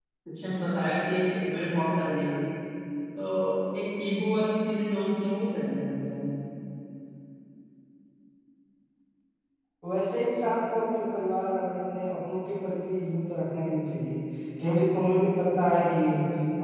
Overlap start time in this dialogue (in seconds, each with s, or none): none